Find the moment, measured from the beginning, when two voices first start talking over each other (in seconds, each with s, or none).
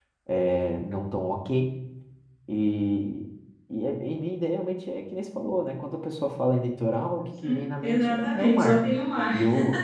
7.4 s